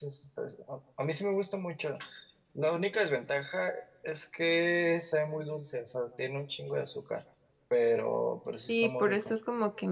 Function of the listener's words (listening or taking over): taking over